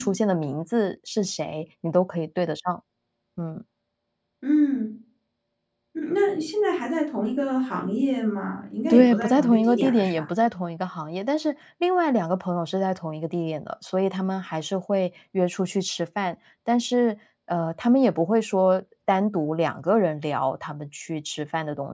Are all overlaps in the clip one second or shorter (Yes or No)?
No